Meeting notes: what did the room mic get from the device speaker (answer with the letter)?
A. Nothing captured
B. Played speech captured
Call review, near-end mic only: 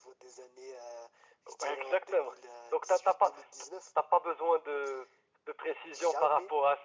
B